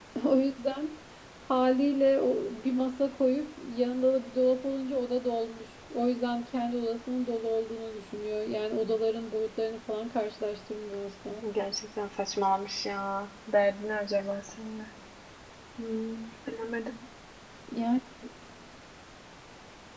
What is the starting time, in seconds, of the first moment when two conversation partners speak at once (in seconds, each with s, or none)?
none